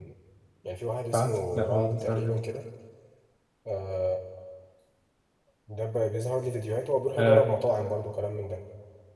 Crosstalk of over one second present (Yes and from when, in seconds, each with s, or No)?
Yes, from 1.1 s